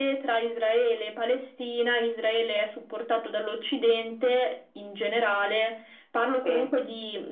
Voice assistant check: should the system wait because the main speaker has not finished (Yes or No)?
Yes